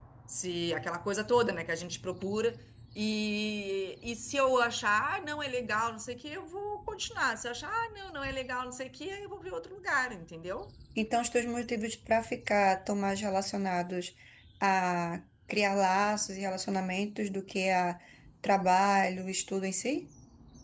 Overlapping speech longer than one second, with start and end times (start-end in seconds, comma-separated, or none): none